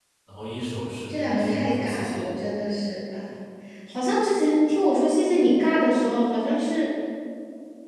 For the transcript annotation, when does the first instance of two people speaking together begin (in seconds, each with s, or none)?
1.1 s